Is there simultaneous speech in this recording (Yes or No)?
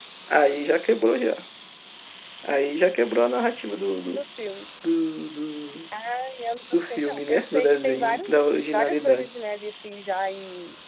Yes